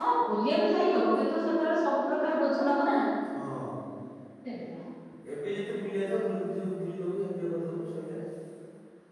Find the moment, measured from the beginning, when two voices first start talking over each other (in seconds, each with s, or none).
none